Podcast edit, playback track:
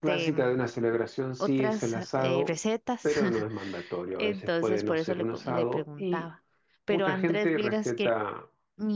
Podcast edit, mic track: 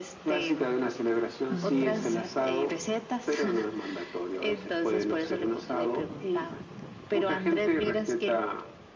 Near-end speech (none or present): present